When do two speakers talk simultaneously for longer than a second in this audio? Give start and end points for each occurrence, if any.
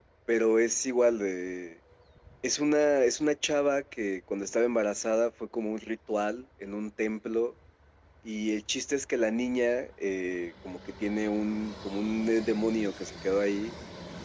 none

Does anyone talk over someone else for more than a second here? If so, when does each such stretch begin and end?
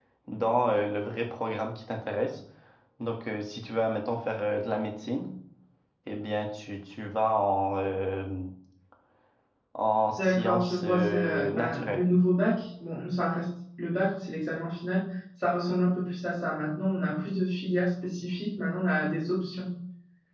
10.2-12.0

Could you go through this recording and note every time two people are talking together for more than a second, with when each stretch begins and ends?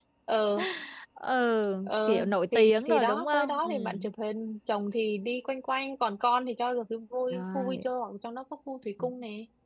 1.9-4.1

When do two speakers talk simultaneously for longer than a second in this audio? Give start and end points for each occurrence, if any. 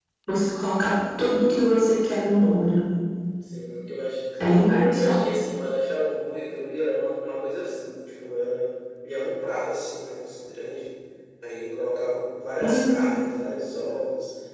none

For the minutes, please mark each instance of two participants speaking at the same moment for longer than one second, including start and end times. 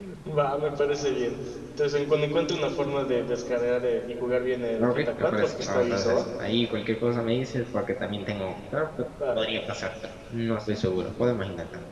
4.8-6.2

